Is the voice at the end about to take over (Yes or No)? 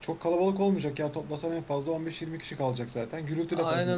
Yes